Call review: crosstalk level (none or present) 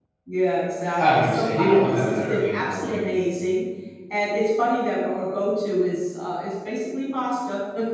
present